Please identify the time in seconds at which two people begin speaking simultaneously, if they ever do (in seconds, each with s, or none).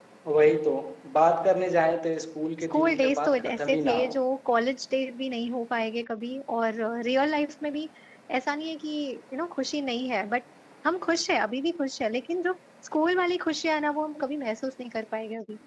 2.6 s